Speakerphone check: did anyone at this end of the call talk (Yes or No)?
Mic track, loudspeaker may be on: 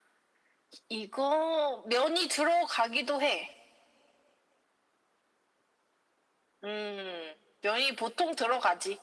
No